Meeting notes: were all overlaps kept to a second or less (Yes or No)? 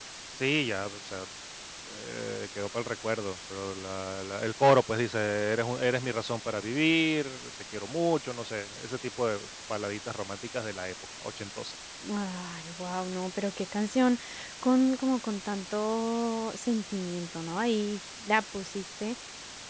Yes